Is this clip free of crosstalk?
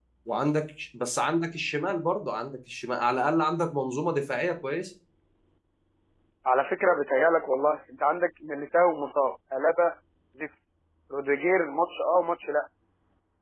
Yes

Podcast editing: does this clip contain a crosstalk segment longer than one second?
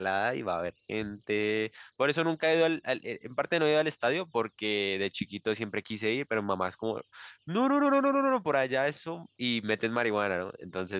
No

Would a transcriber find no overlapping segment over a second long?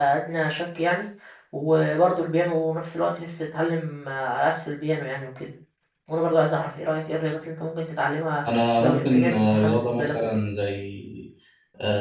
No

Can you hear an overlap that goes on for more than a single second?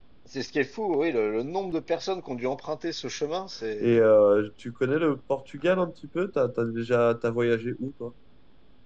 No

